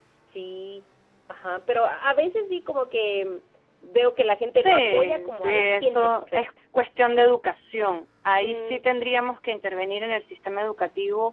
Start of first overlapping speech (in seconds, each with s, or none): 4.5 s